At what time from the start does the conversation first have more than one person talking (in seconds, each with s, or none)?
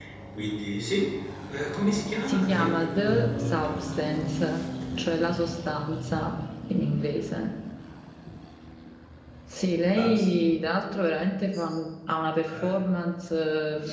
2.2 s